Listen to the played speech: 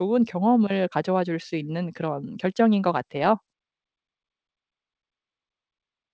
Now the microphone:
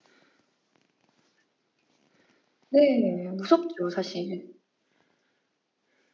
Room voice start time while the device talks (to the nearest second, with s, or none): 3 s